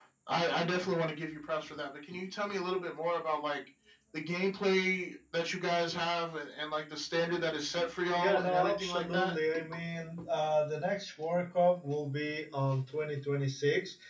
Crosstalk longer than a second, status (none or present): present